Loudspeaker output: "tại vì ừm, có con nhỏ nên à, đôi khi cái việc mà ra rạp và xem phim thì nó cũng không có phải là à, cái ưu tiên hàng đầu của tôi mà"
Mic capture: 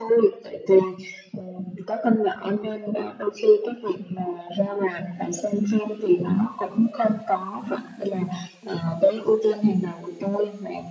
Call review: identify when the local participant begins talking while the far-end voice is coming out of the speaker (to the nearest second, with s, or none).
none